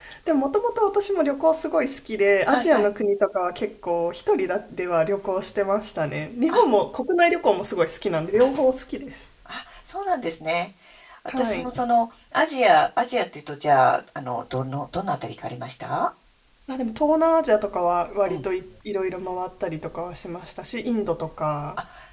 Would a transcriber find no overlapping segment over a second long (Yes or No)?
Yes